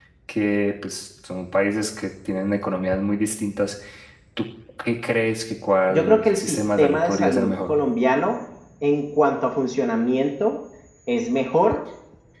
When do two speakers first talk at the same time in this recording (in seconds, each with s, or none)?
5.9 s